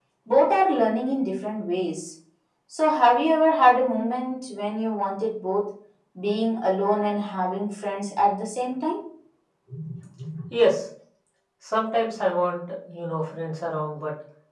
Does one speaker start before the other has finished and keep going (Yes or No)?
No